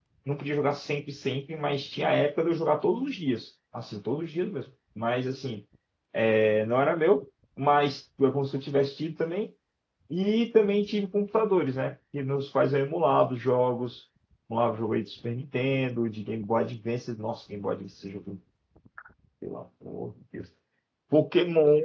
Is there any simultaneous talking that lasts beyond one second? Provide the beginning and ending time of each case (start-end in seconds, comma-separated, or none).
none